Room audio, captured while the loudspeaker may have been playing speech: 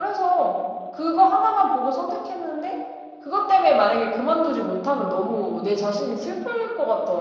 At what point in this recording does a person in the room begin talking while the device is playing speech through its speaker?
none

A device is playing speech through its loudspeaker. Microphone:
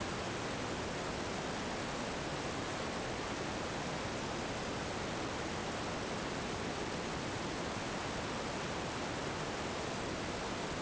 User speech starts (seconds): none

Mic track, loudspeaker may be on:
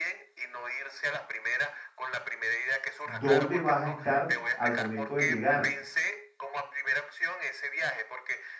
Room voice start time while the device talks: 3.0 s

